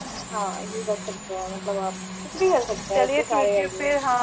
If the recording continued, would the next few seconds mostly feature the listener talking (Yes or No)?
Yes